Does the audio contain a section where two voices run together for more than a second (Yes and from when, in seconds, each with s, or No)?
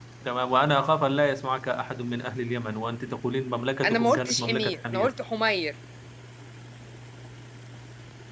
Yes, from 3.8 s